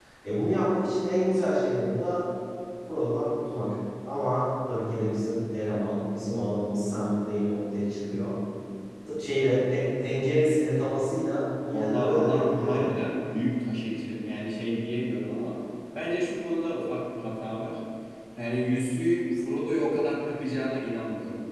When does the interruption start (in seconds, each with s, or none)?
11.7 s